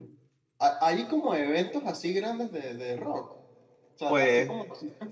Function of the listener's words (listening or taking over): listening